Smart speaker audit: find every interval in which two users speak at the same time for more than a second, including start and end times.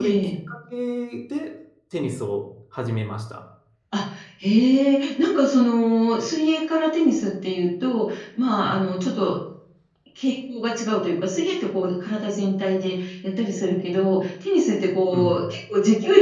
none

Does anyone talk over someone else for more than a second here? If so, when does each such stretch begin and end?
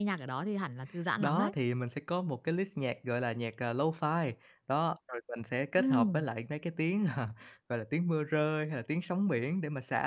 none

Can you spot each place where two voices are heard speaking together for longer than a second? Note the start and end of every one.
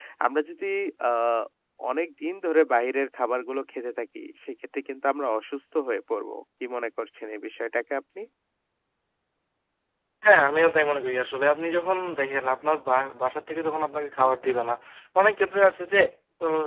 none

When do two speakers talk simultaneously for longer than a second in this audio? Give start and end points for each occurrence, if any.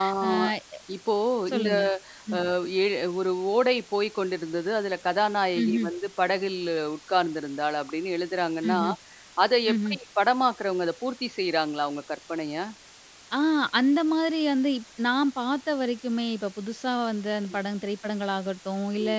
none

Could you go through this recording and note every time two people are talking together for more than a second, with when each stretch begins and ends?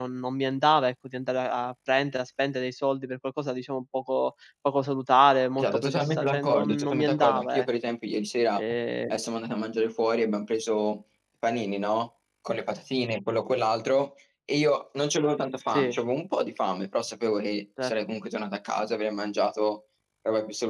5.6-7.7

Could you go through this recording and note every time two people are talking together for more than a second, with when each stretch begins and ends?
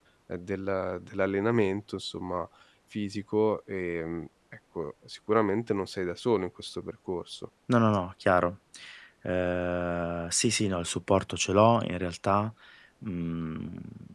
none

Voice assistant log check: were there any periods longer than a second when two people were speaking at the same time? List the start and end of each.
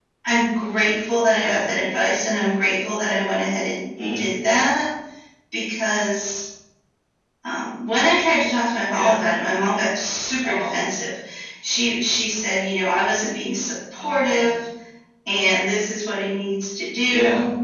none

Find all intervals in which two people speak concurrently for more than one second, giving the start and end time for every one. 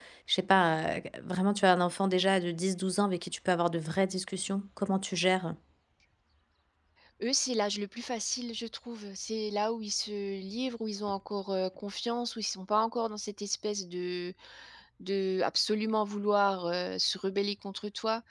none

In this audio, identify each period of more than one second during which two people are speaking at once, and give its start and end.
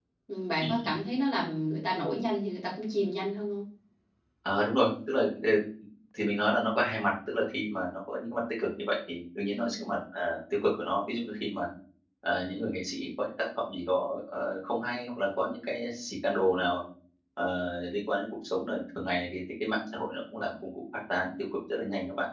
none

